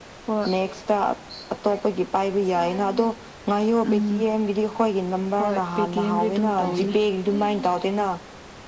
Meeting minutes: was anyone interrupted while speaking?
Yes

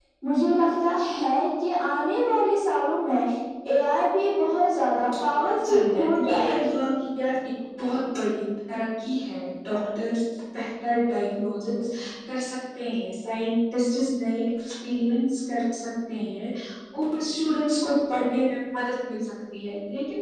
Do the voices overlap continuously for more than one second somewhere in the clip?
Yes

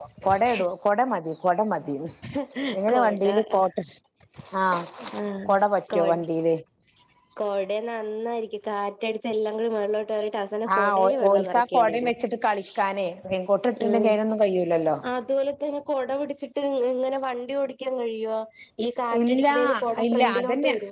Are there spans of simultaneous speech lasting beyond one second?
Yes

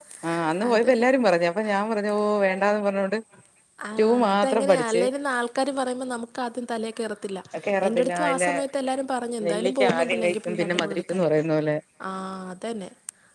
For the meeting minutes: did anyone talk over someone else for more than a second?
Yes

